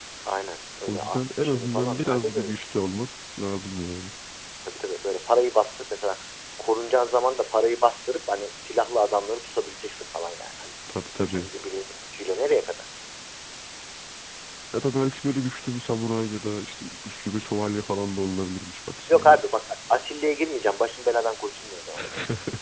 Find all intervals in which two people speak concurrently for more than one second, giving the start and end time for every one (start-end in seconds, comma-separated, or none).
0.9-2.5